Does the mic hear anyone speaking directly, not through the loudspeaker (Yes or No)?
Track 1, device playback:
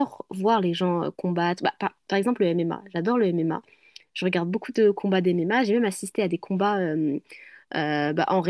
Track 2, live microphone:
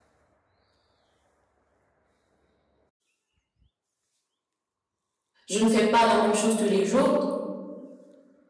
Yes